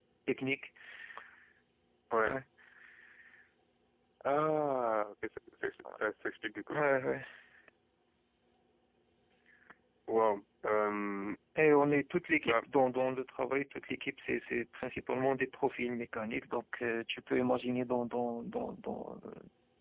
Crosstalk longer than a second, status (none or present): none